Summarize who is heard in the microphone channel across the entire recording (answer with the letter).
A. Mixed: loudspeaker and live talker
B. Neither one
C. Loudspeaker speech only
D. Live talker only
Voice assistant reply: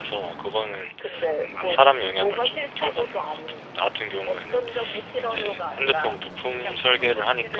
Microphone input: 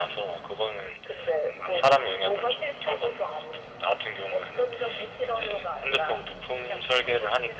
C